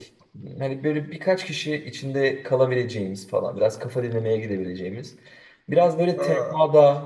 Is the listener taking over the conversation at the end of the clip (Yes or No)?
No